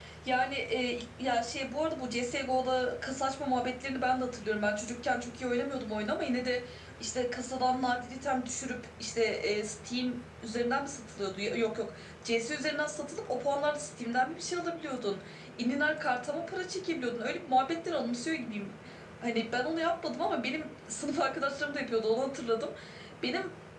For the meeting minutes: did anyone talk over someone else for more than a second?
No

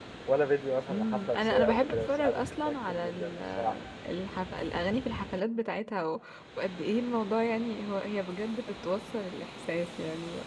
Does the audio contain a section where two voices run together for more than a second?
Yes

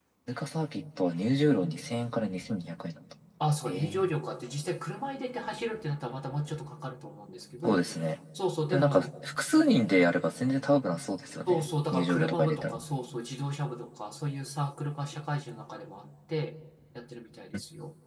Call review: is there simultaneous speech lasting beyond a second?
Yes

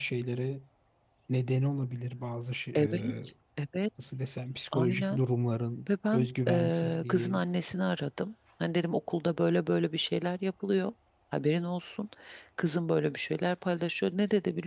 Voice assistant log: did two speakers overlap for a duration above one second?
Yes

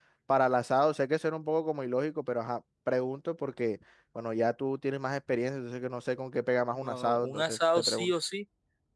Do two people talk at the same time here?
Yes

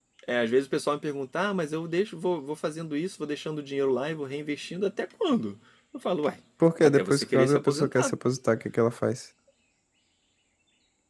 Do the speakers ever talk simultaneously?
Yes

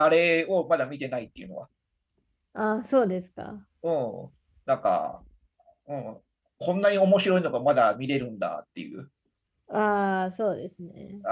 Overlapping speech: No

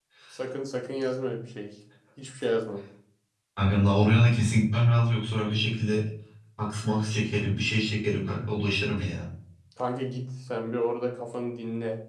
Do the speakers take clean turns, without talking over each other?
Yes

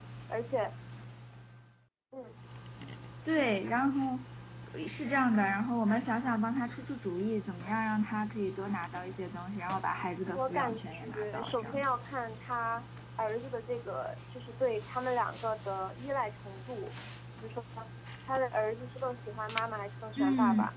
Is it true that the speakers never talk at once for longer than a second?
No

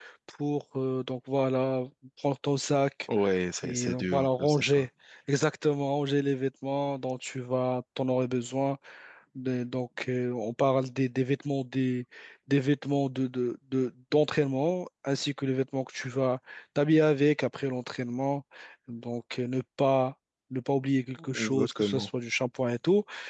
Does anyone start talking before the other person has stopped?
Yes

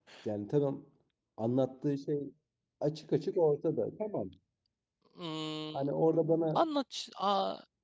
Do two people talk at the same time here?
No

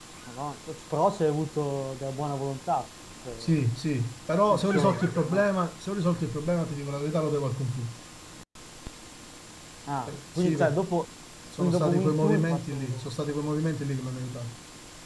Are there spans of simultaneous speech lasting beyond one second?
Yes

